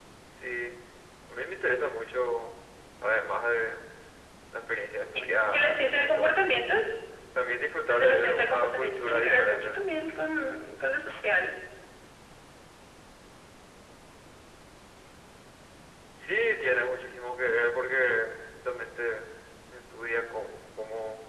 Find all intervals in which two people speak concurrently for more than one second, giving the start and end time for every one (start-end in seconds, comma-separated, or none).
5.4-6.6, 7.9-9.8